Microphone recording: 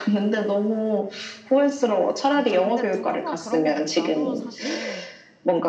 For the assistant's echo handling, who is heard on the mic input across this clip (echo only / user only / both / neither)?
both